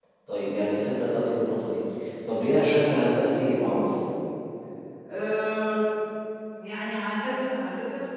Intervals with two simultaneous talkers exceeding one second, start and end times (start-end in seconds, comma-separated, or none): none